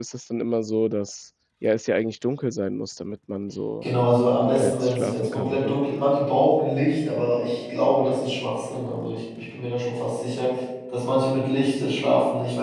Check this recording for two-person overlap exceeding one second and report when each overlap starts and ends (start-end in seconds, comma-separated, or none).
4.4-5.8